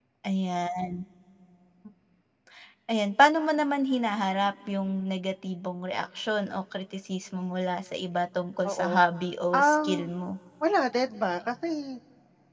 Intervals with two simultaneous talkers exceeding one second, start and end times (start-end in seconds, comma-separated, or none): none